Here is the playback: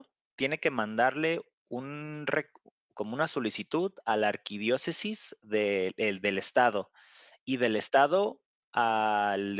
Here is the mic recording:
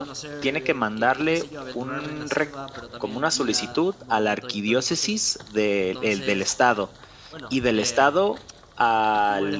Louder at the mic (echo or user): echo